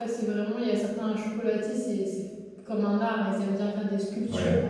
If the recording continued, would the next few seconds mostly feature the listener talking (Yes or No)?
No